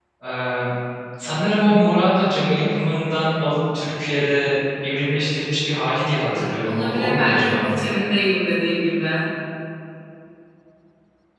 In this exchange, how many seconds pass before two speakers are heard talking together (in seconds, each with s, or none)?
6.2 s